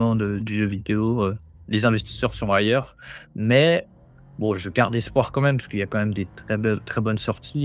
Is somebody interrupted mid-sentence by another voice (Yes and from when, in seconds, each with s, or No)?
No